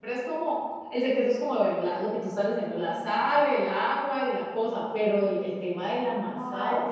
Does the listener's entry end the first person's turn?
Yes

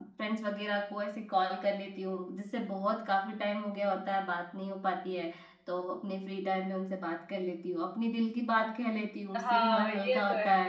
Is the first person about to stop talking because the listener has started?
Yes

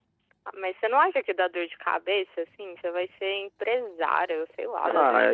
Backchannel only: No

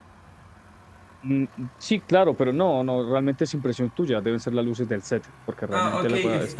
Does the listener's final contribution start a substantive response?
Yes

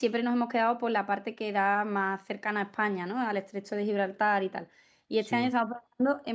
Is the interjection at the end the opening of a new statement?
No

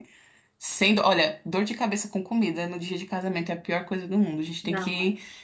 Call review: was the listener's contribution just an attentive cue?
Yes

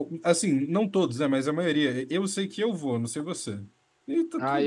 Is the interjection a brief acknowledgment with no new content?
No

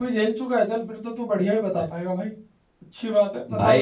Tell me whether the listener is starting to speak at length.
Yes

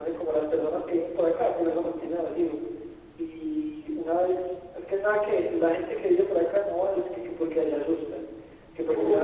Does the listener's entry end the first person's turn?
No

